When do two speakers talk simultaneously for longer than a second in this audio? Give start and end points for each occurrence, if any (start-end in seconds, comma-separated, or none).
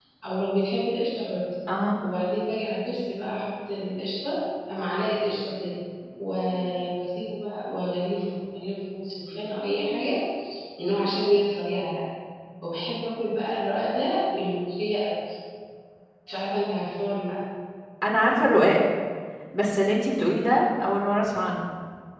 none